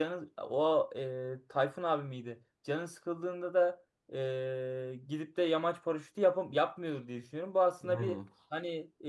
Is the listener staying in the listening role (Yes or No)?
Yes